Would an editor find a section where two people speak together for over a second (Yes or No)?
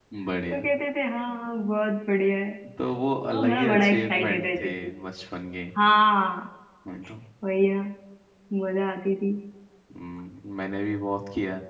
Yes